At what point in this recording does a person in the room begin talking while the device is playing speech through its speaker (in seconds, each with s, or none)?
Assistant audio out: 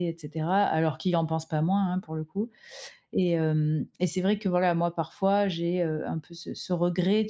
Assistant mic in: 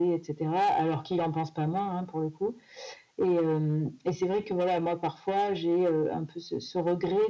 none